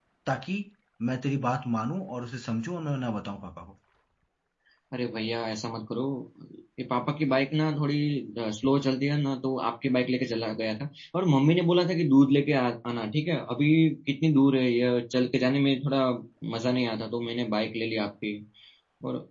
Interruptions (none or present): none